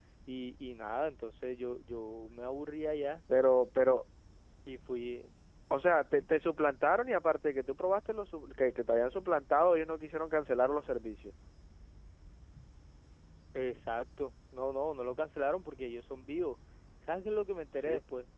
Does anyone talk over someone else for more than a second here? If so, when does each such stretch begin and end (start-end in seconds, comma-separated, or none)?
none